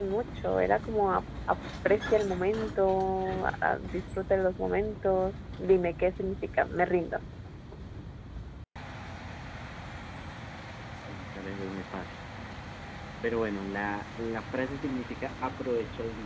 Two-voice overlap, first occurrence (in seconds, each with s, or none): none